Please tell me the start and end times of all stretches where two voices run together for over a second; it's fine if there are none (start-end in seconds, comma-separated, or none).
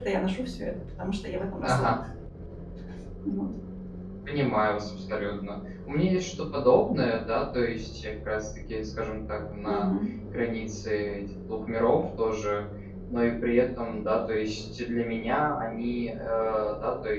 none